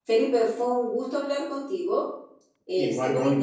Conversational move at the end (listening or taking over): listening